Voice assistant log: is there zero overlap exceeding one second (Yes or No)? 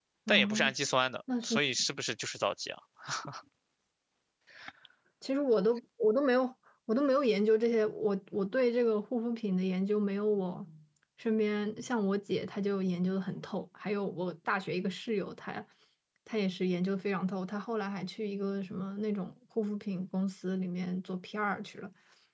Yes